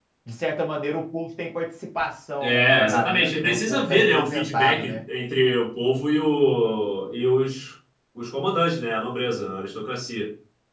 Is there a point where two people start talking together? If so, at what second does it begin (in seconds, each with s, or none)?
2.4 s